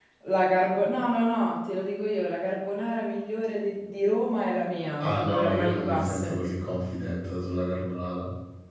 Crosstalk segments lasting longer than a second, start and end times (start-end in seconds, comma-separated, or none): 5.0-6.4